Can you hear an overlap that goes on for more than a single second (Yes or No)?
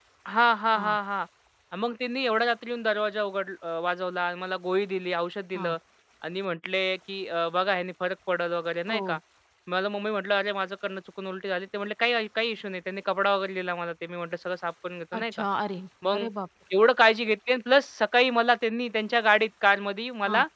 No